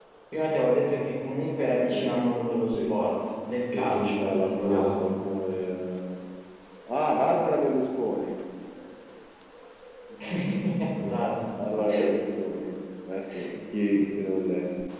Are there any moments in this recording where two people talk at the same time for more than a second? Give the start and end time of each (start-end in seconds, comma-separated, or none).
3.7-5.1